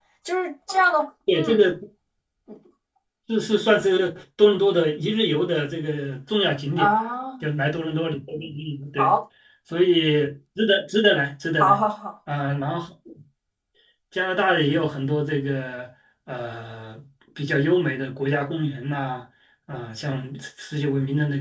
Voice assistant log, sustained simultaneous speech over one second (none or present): none